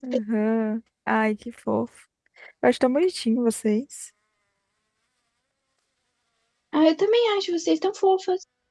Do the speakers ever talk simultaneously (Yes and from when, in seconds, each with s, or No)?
No